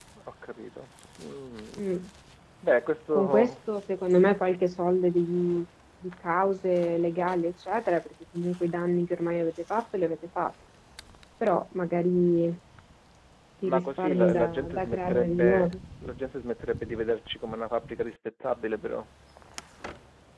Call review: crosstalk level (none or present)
present